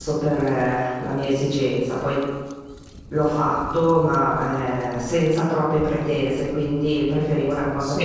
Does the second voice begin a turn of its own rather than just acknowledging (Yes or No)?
Yes